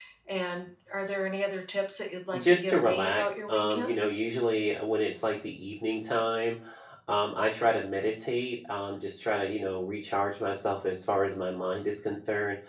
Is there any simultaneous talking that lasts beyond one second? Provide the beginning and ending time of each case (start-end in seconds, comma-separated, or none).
2.4-3.9